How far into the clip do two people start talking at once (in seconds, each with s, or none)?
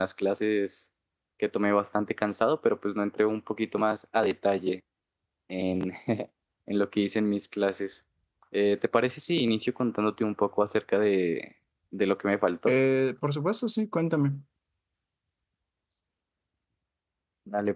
none